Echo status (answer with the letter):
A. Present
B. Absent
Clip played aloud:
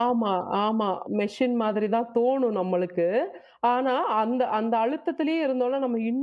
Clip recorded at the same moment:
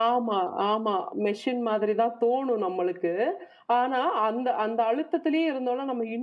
A